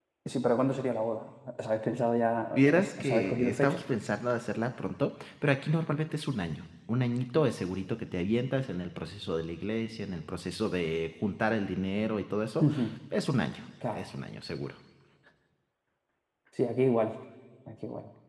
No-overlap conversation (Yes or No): No